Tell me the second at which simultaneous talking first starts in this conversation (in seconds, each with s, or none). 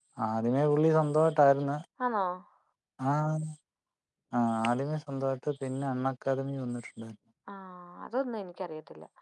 none